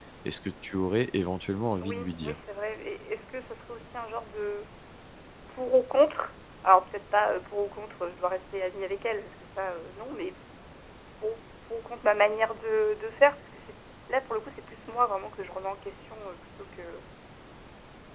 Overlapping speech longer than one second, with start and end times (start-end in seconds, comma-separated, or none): none